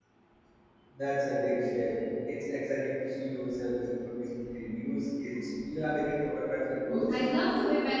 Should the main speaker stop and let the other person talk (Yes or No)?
Yes